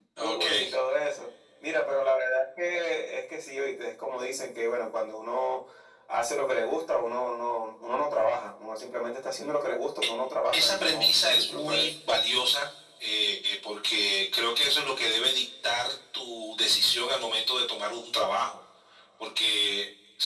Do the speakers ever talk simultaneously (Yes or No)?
Yes